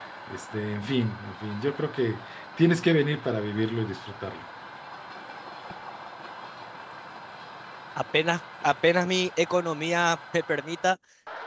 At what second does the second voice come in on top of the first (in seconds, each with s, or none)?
none